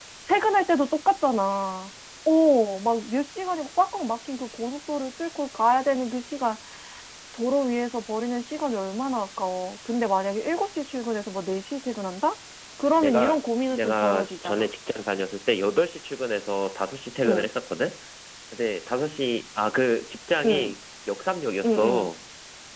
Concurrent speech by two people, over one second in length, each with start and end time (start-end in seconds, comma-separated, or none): 12.9-14.7